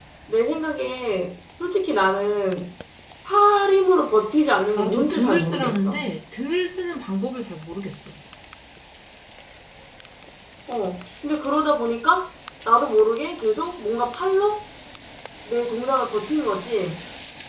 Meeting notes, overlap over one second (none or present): present